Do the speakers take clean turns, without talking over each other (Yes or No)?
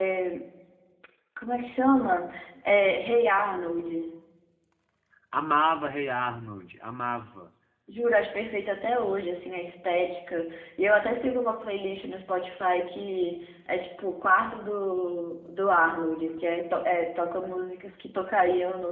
Yes